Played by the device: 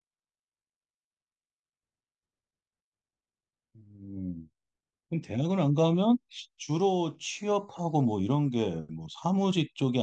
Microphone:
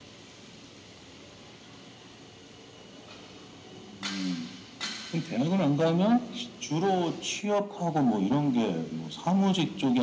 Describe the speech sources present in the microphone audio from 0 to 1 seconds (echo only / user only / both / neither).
neither